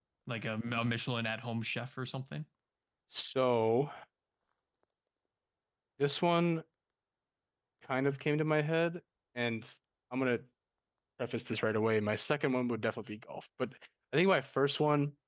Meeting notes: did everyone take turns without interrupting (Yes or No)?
Yes